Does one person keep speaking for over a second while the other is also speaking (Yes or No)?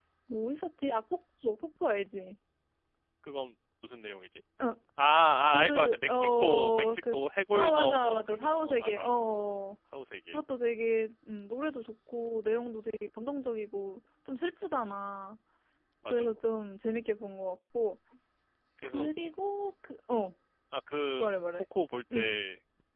Yes